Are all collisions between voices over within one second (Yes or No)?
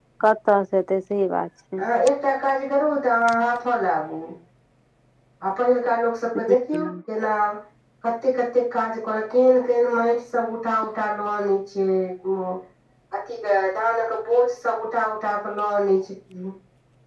Yes